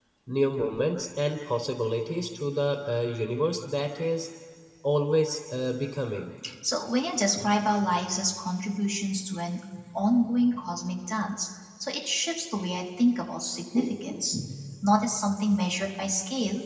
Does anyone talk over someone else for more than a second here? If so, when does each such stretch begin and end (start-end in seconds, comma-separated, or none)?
none